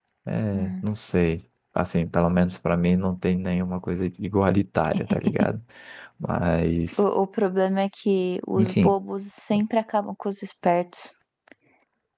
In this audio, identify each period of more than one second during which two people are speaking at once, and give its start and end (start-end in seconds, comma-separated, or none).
none